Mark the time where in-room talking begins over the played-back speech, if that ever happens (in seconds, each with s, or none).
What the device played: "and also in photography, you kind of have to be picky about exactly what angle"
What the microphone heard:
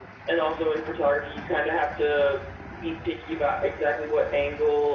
none